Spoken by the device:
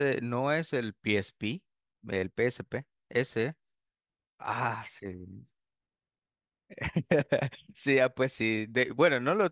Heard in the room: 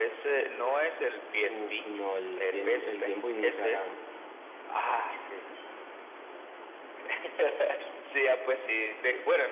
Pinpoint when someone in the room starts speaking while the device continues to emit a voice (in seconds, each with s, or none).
1.4 s